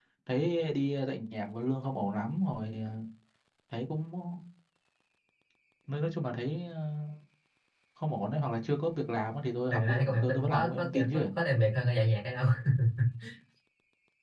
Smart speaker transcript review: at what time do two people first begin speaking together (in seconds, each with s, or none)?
9.7 s